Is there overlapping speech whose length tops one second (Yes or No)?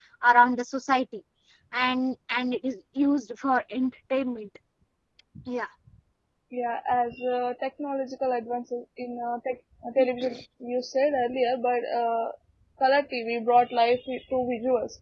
No